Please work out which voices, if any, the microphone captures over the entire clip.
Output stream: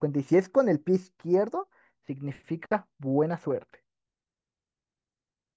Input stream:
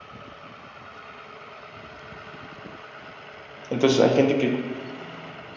user only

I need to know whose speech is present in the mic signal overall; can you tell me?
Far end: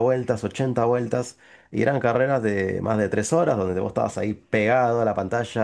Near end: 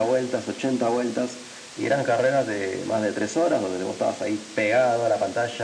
echo only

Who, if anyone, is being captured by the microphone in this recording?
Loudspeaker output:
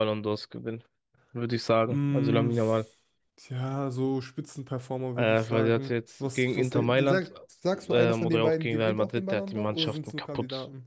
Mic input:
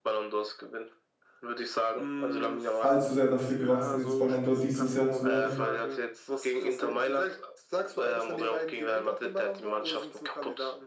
both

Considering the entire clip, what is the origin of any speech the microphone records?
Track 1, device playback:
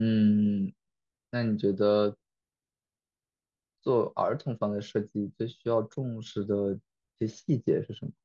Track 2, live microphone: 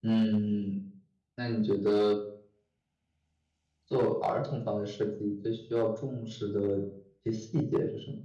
echo only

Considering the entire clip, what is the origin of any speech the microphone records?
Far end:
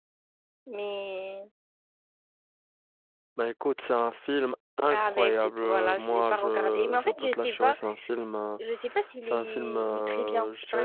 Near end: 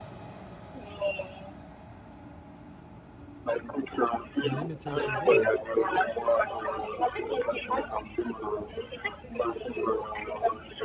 both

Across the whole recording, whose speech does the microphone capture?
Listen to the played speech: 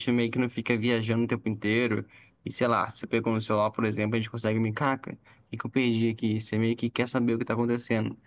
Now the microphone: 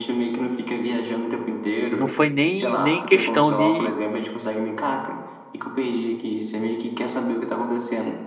both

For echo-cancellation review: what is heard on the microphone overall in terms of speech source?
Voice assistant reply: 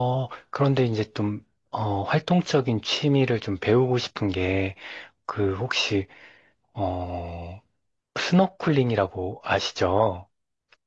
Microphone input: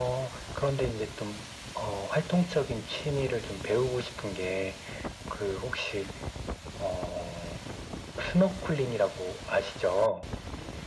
echo only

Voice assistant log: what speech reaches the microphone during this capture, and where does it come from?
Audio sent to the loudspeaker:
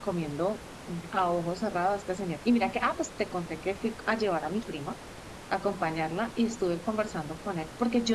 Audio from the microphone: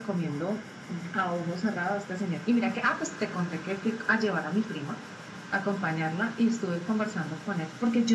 echo only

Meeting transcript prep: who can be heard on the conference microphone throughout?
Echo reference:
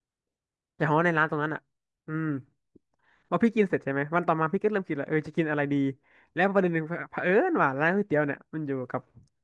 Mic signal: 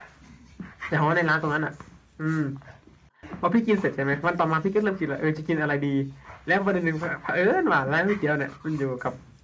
echo only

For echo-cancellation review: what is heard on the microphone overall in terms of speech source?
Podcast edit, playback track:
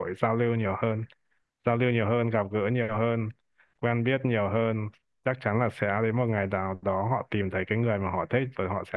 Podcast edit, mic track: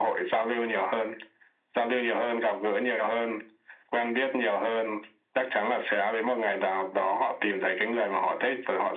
echo only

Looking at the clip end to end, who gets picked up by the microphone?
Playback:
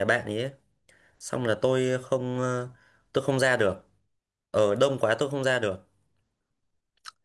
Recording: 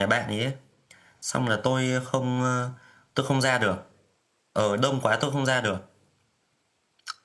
echo only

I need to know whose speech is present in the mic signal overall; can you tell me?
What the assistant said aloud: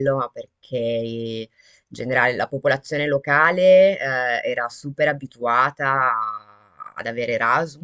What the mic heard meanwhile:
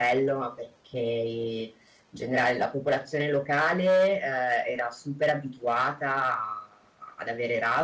echo only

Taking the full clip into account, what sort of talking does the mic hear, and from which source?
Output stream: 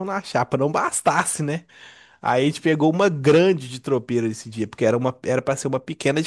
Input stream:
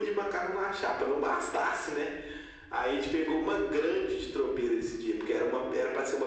echo only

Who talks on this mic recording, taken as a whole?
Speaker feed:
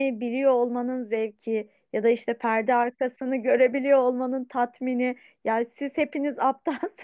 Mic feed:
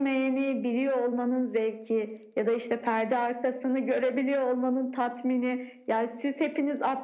echo only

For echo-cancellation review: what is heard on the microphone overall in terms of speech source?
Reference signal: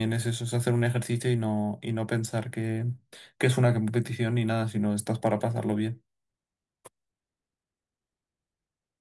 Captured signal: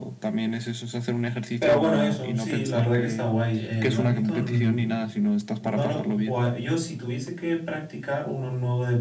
both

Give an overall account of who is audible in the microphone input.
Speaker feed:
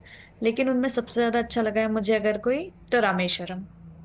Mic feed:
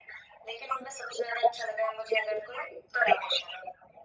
echo only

